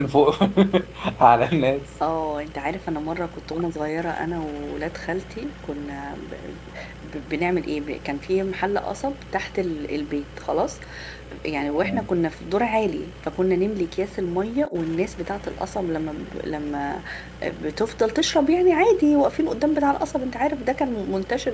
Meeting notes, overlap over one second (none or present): none